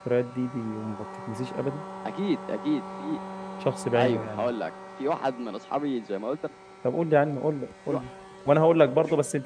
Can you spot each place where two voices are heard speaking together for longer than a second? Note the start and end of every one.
none

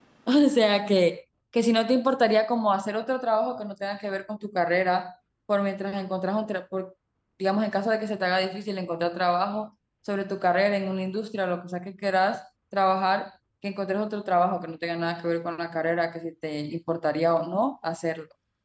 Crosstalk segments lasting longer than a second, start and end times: none

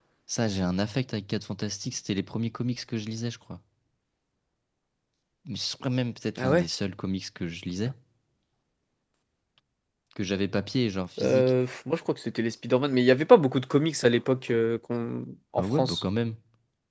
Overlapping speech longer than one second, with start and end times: none

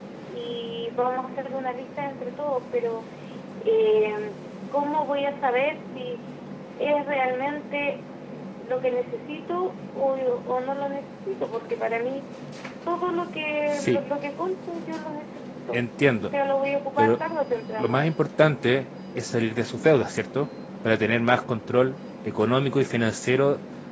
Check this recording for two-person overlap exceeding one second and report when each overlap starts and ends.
none

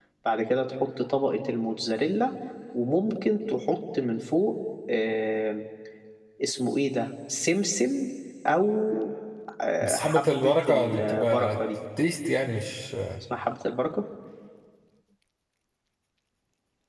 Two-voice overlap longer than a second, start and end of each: 9.8-11.6

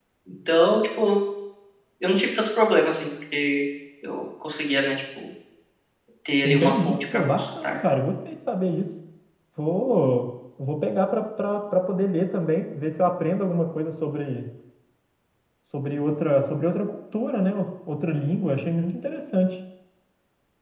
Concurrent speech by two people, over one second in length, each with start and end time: 6.4-7.8

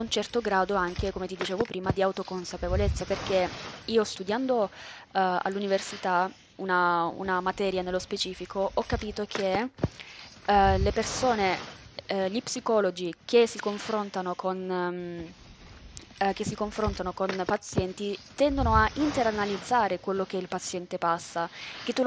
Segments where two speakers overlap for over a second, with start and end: none

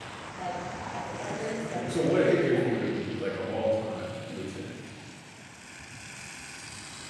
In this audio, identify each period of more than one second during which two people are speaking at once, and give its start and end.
1.2-2.9

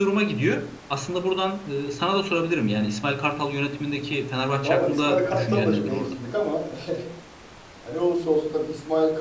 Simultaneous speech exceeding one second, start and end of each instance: 4.6-6.1

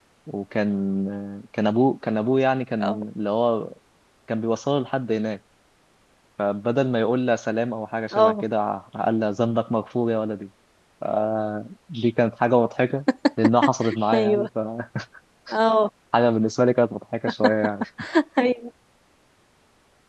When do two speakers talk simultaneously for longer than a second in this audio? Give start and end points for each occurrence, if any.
none

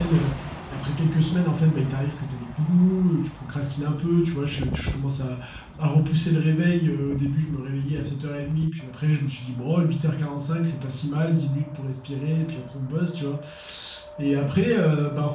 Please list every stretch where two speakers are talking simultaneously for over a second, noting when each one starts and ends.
none

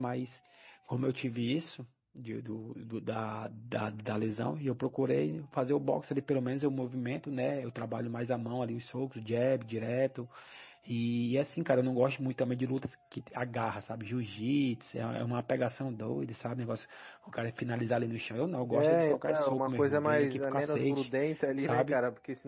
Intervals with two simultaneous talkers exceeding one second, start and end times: 18.7-21.1

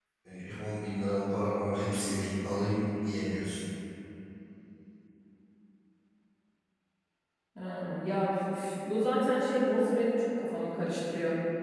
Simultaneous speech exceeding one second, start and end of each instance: none

